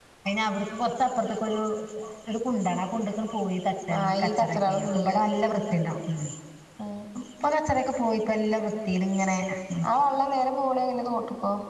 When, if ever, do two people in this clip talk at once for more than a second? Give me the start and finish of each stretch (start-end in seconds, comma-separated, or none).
4.0-5.2